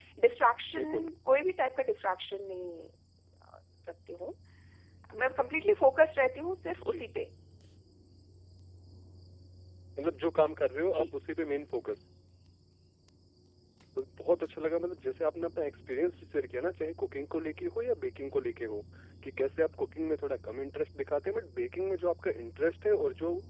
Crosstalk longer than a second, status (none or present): none